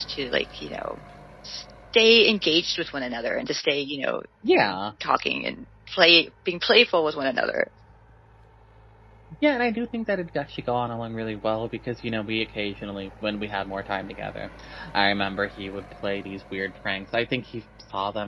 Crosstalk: none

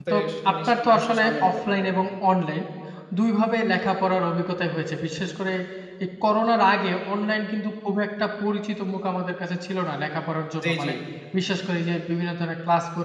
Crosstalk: present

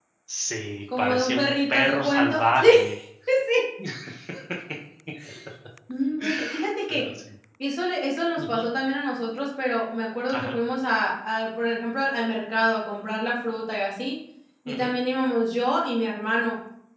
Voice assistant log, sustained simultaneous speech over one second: present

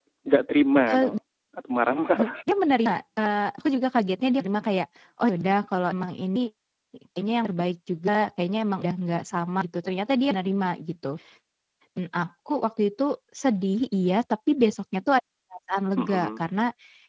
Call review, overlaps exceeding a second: none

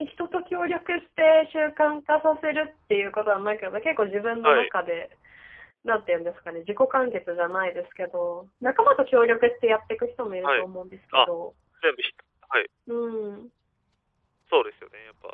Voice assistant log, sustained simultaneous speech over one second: none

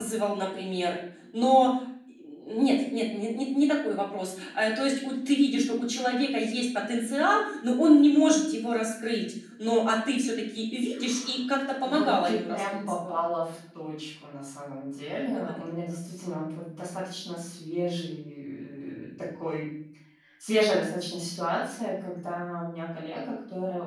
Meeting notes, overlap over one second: present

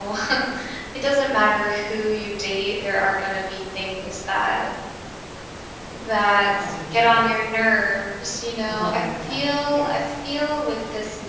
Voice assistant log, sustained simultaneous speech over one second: present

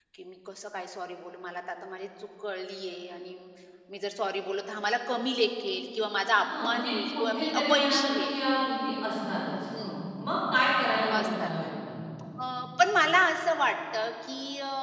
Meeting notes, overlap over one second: present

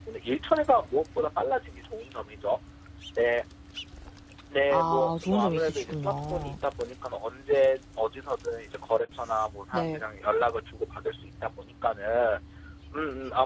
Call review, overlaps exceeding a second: present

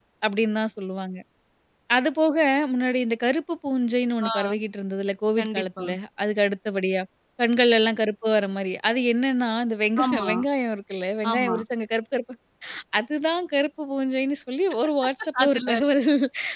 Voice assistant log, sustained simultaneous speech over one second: none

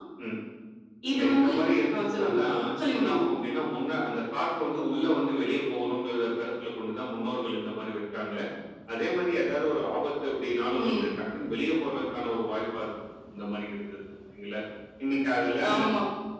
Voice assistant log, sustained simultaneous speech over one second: none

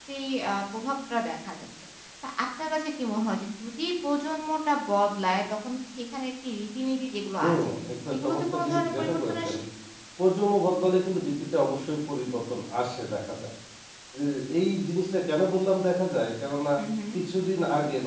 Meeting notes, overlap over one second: present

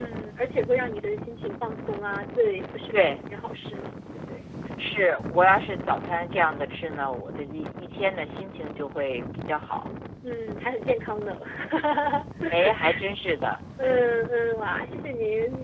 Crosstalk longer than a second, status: none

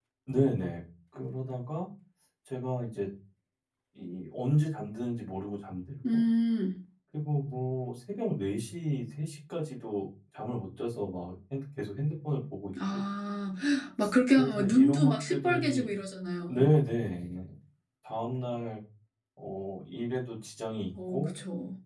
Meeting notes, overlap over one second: present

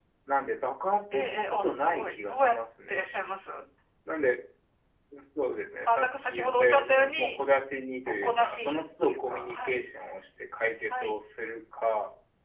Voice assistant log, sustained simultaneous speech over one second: present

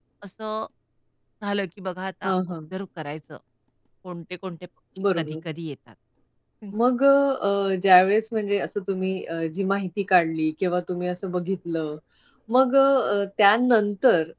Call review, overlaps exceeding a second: none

